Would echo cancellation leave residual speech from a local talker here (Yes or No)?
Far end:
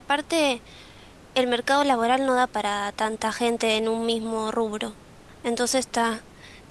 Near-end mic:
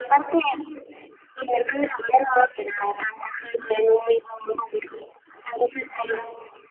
No